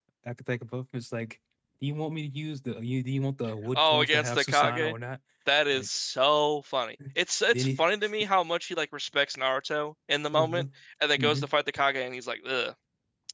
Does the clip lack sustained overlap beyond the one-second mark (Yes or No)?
No